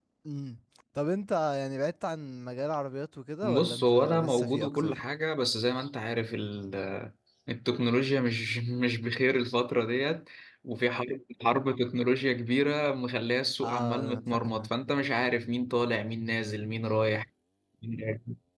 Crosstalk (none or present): present